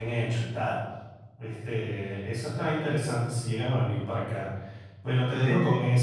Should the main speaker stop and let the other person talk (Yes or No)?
No